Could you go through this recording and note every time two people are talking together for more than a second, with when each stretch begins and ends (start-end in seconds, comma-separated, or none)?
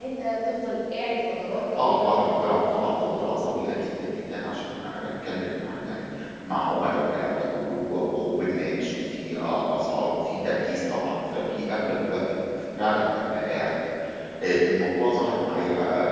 1.8-3.6